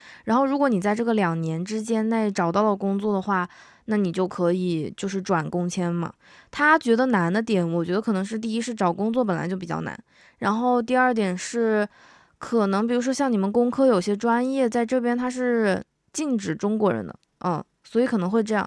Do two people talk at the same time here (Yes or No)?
No